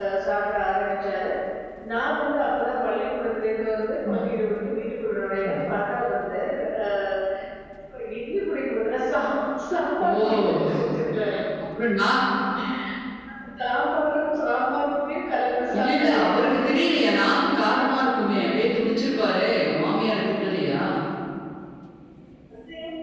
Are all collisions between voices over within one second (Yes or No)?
No